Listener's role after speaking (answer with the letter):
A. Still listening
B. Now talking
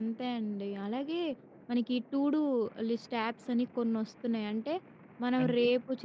A